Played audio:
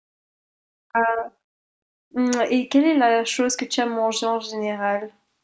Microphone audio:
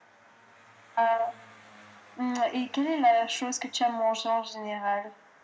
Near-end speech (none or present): none